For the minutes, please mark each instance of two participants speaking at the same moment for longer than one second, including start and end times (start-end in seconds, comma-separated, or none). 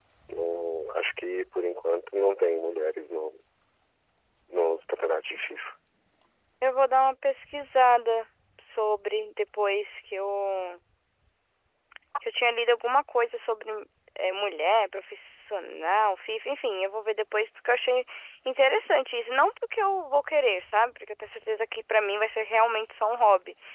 none